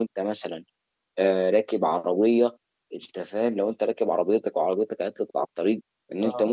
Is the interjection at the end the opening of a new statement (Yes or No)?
No